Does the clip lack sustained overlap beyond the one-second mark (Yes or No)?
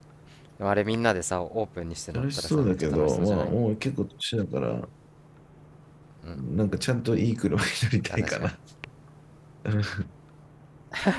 No